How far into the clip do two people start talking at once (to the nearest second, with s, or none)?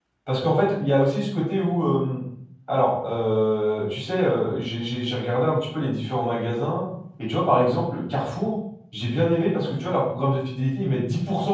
none